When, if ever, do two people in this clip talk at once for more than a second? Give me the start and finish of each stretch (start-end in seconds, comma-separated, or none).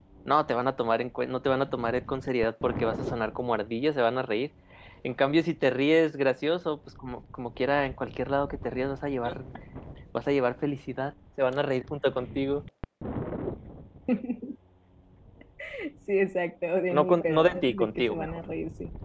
16.9-18.3